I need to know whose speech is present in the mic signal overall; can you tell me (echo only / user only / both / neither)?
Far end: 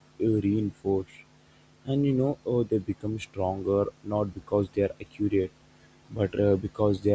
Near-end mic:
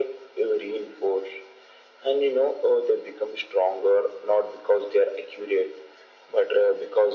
echo only